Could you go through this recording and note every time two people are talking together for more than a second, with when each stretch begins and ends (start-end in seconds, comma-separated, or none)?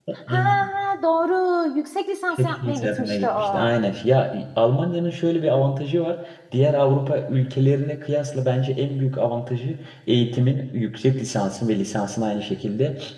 2.4-3.7